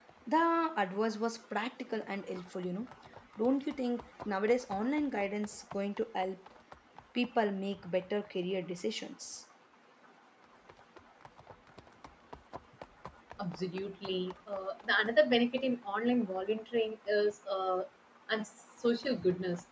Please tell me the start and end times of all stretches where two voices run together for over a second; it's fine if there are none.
none

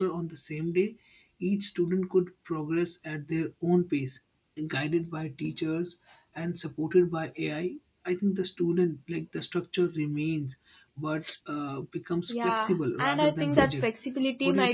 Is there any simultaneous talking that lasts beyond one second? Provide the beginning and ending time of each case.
12.3-13.9

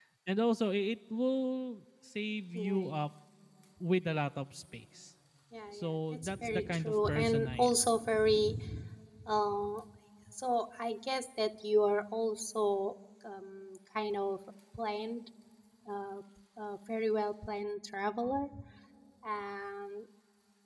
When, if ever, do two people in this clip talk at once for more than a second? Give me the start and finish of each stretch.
5.7-7.7

